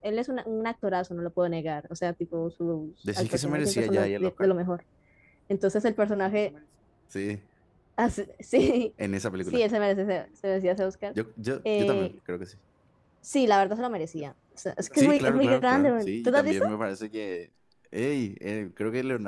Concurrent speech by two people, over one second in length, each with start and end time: 3.1-4.5, 15.0-16.4

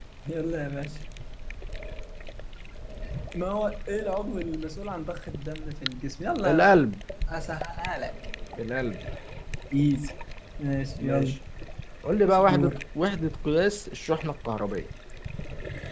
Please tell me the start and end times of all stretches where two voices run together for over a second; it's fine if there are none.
none

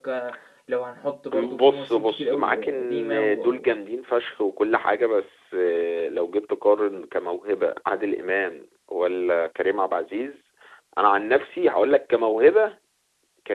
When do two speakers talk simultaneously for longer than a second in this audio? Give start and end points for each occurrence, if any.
1.6-3.7

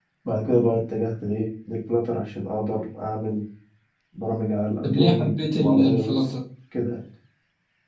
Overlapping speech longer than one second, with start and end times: 4.8-6.3

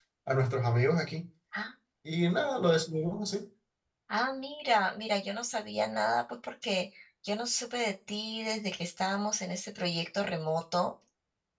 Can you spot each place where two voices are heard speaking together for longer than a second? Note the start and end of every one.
none

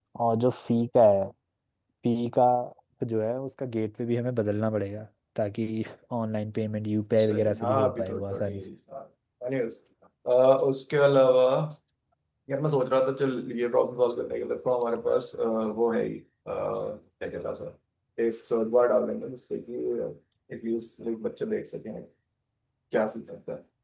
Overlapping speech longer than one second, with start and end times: 7.2-8.6

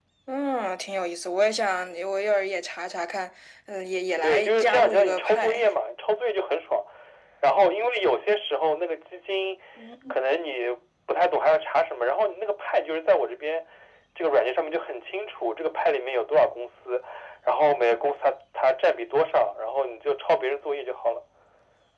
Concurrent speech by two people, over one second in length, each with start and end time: 4.2-5.6

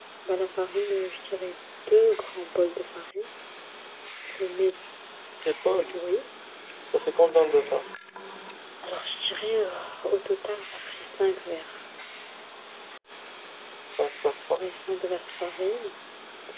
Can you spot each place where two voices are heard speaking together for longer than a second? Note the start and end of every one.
none

